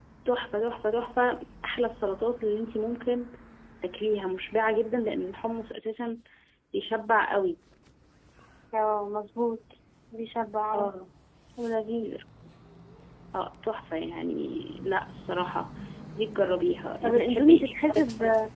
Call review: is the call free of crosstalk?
No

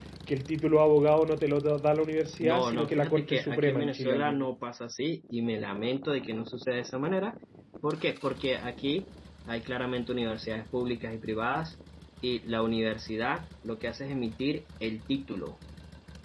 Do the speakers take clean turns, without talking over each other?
No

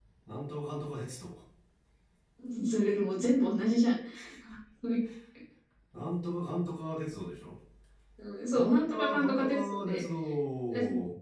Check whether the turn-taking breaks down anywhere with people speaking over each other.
Yes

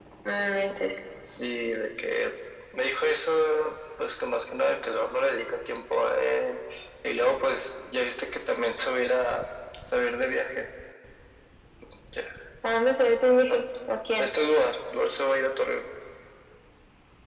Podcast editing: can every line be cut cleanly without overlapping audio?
Yes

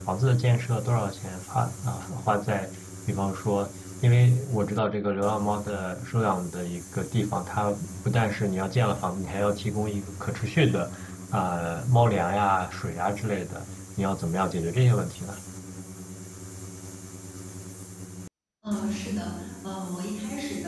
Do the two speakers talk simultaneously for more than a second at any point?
No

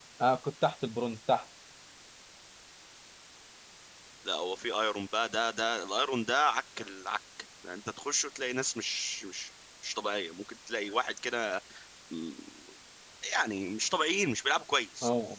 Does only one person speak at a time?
Yes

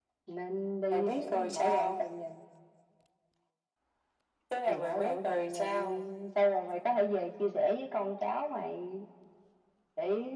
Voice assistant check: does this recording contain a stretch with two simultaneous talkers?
Yes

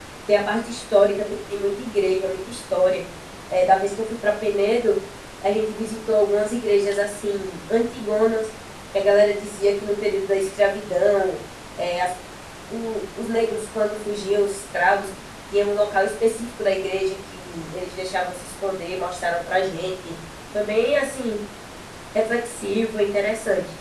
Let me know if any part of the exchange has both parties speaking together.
No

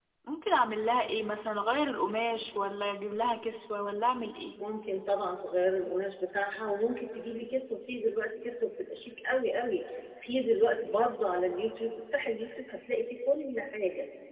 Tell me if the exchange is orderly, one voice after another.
Yes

